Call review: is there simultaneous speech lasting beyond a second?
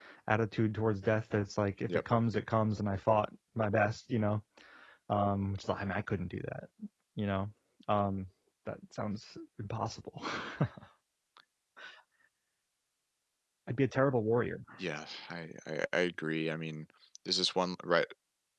No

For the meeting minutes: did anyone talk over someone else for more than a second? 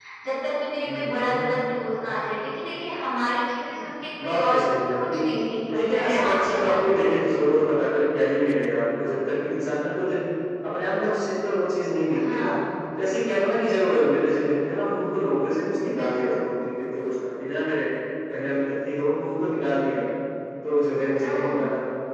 Yes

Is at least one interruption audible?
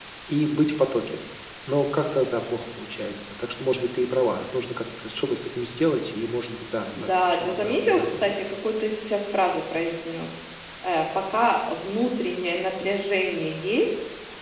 Yes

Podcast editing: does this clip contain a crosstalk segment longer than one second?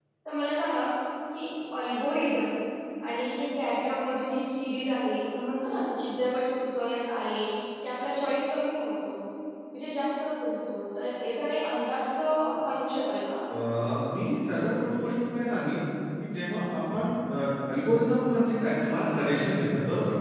No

